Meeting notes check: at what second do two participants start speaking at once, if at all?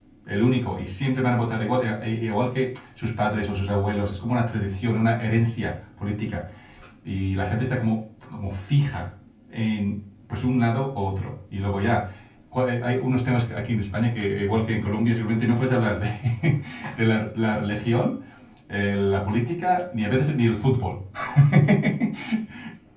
none

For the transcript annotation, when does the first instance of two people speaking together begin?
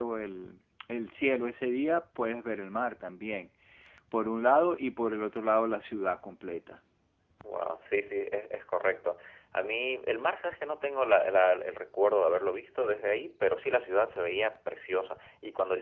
none

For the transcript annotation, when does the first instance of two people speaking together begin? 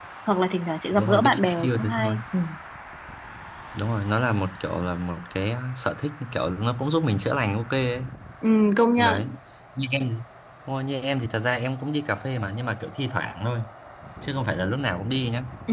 0.9 s

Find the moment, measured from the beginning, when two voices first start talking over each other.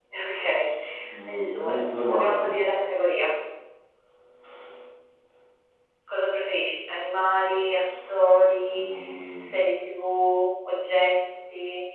1.3 s

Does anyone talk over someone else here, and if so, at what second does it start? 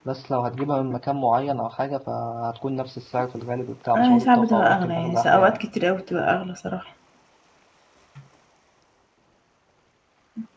3.9 s

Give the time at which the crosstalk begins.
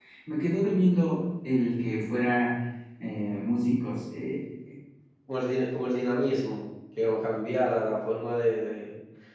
none

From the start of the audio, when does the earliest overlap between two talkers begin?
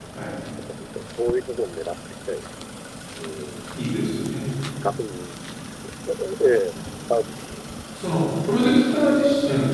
none

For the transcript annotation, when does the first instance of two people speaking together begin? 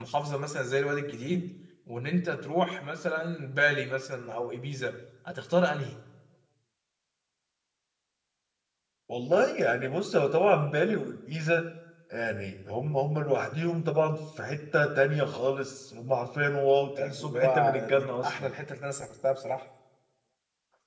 17.0 s

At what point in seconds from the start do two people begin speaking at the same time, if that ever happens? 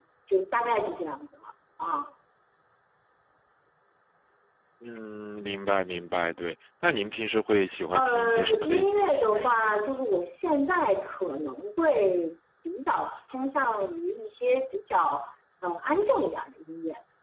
7.9 s

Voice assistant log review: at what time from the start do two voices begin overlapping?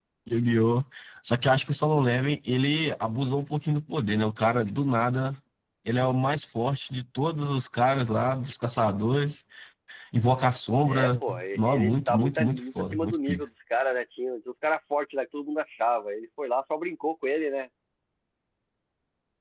10.9 s

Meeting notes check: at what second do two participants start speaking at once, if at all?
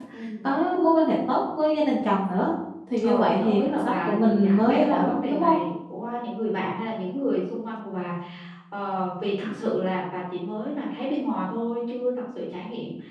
3.0 s

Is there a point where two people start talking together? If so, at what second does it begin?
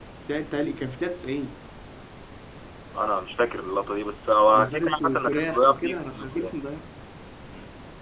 4.5 s

